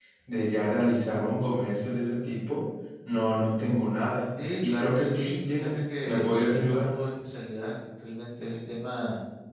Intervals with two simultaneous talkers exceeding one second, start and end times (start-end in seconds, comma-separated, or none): 4.6-6.8